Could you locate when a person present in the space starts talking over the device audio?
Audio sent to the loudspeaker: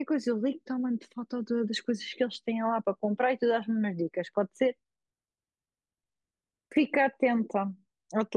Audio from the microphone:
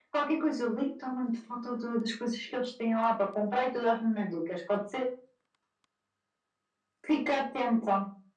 none

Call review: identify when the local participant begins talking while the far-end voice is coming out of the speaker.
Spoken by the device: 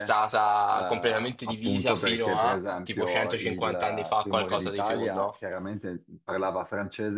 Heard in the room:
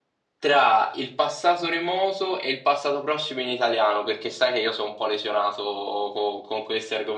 0.4 s

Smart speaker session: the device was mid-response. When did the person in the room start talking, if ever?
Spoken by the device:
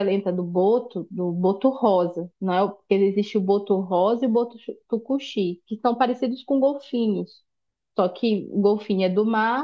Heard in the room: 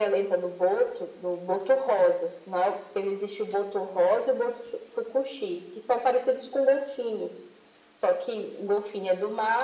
none

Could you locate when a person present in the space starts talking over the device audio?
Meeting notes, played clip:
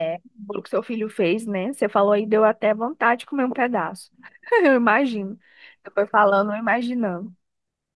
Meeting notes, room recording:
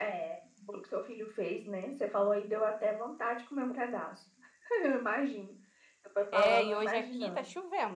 6.3 s

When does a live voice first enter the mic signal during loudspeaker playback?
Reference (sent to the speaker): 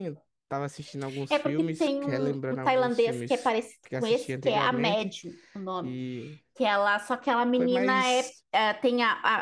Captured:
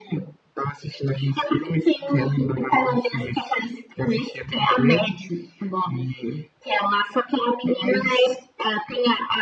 none

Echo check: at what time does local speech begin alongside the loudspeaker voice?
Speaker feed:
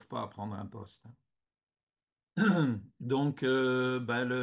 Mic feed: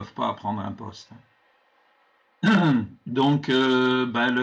none

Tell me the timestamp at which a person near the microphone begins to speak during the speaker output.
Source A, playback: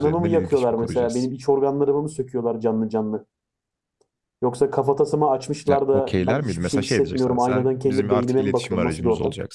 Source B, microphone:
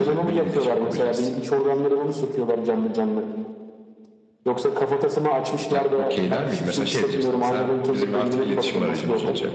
none

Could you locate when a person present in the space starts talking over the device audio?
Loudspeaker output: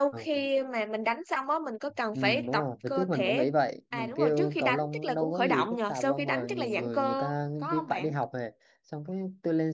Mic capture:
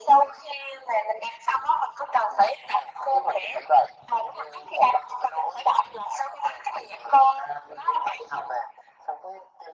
none

